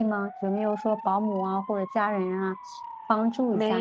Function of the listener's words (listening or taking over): taking over